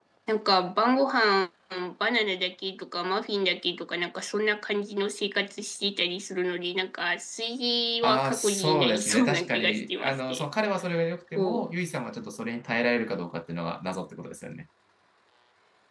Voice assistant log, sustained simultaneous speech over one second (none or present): present